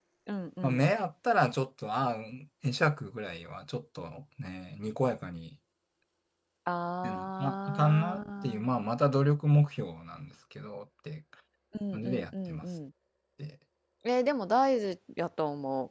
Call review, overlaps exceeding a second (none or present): present